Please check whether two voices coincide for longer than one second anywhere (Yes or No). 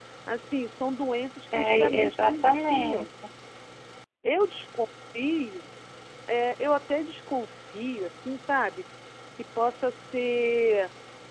Yes